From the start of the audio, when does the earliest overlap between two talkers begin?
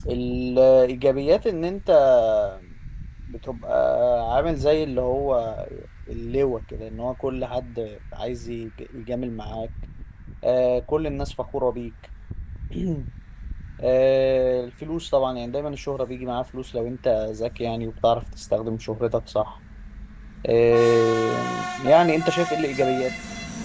none

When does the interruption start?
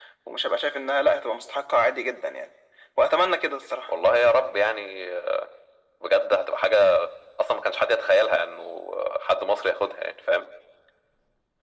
none

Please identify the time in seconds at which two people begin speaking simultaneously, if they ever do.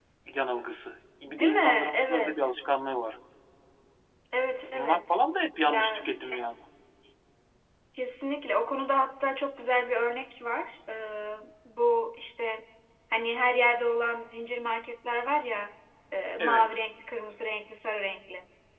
1.2 s

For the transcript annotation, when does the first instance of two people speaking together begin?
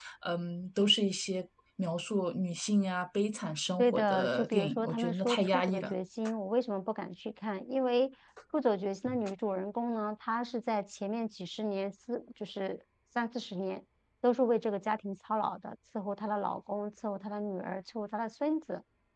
3.8 s

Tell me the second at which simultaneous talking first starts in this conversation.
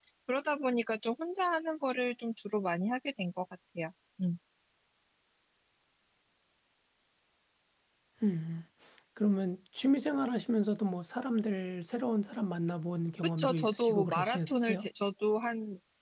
13.2 s

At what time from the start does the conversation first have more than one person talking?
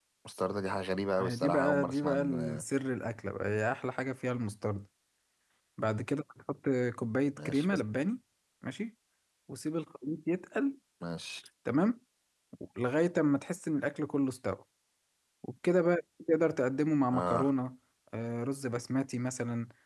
1.2 s

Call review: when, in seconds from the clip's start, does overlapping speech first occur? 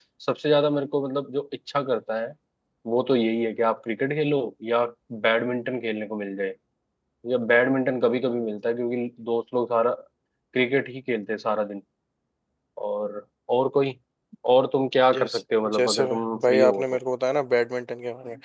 15.1 s

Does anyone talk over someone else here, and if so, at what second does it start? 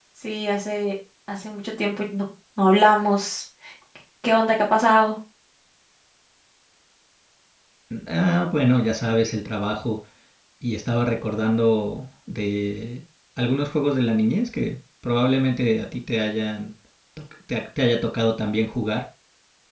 none

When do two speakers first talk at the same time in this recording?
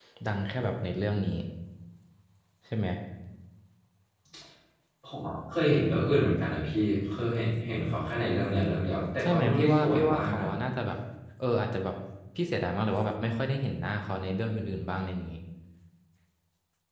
9.2 s

